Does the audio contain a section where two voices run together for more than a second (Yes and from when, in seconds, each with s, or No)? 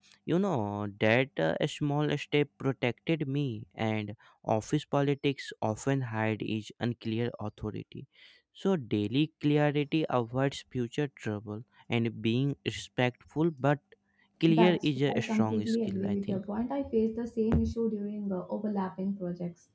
Yes, from 14.5 s